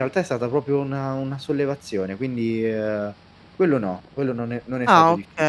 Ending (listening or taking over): taking over